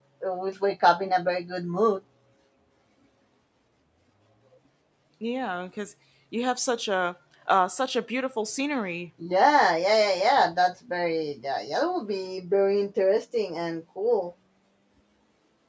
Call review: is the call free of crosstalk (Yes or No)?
Yes